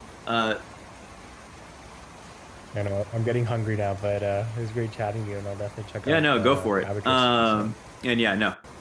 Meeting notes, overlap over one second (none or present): present